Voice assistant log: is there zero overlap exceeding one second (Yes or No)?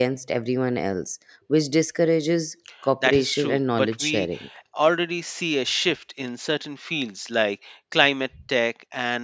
No